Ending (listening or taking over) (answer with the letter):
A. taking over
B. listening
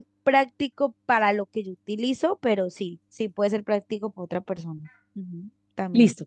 A